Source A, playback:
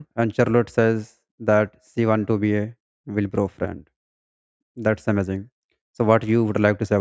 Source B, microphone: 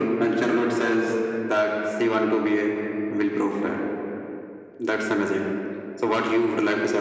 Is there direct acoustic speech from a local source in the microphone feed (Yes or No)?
No